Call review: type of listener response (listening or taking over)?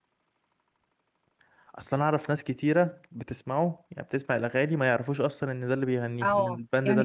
taking over